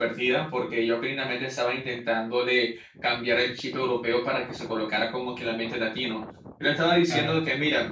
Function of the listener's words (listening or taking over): listening